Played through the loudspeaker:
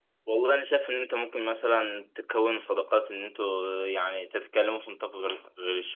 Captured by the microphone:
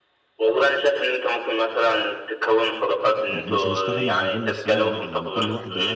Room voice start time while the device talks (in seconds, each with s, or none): 3.3 s